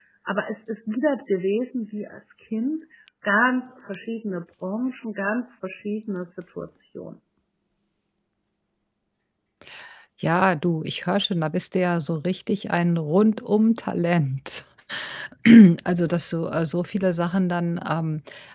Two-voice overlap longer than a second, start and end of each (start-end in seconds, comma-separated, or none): none